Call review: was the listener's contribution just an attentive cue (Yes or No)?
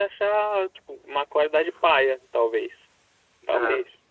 No